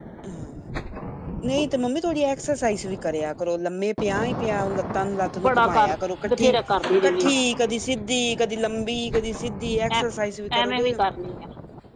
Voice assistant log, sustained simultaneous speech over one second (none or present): none